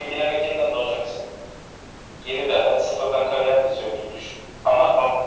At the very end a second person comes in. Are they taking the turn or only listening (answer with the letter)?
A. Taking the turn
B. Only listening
B